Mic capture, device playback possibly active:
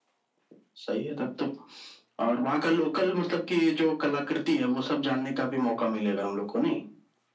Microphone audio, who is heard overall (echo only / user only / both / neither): echo only